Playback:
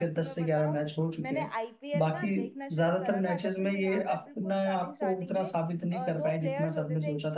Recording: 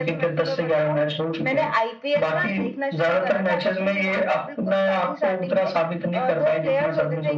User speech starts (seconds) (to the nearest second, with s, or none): none